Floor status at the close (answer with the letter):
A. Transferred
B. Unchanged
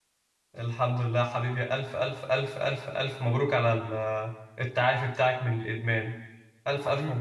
A